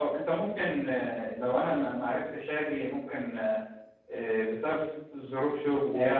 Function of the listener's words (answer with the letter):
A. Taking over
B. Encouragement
B